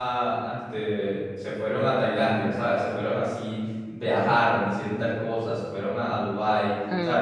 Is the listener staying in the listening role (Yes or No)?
Yes